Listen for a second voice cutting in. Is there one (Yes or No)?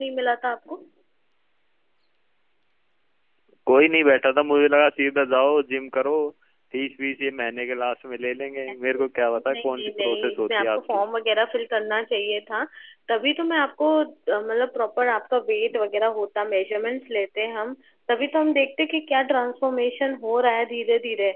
Yes